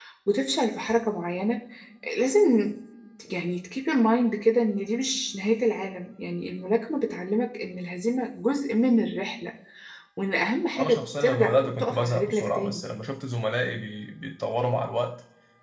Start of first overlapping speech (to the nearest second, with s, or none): 11 s